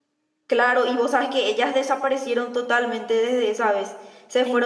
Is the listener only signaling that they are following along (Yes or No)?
Yes